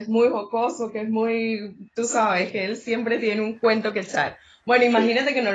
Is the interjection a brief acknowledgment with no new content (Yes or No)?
Yes